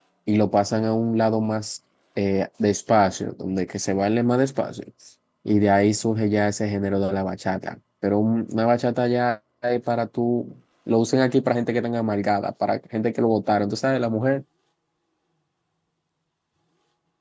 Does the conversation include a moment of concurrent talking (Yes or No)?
No